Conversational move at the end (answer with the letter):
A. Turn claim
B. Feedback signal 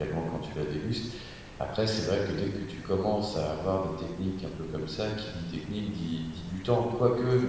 B